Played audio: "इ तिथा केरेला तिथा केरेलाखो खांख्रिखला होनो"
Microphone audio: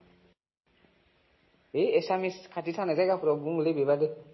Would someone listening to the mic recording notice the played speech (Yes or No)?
No